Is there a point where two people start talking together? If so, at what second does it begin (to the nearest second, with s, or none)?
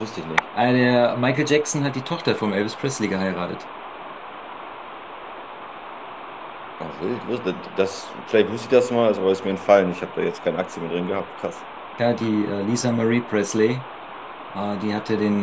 none